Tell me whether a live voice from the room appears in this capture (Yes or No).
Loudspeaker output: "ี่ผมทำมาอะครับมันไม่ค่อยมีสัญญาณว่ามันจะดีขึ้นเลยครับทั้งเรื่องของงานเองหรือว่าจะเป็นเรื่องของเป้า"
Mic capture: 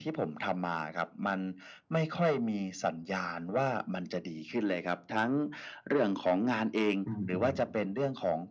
Yes